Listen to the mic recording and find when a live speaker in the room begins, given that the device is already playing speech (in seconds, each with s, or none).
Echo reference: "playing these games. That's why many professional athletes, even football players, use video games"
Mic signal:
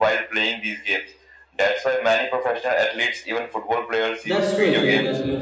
4.2 s